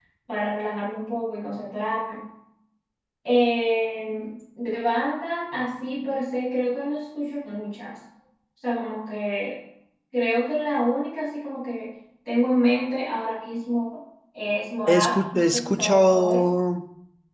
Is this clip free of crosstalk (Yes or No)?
No